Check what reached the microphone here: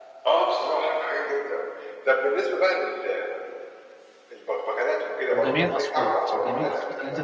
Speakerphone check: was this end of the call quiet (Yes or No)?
No